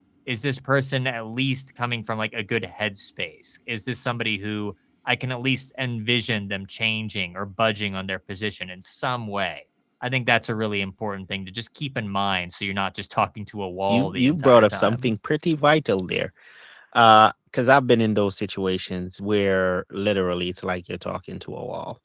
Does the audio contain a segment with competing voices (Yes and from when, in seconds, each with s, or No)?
Yes, from 13.9 s